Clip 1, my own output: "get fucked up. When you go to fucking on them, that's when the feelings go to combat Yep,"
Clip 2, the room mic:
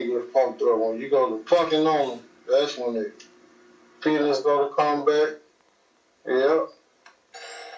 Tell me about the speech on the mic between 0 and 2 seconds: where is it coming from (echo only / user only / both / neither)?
echo only